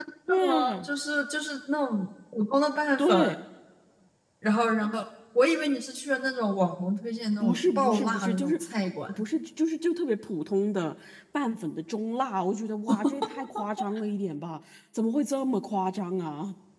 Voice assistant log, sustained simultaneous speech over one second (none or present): present